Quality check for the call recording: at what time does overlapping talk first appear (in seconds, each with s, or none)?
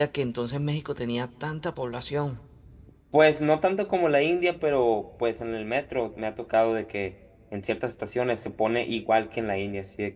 none